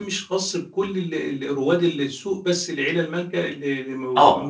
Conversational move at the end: taking over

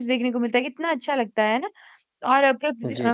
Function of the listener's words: listening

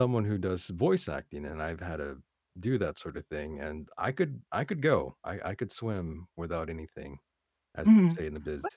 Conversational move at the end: taking over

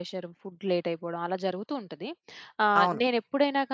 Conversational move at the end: listening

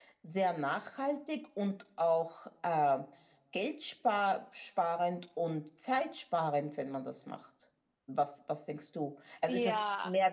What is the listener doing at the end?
listening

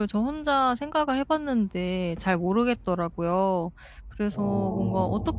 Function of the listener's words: listening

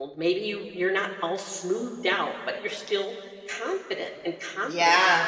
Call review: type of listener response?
taking over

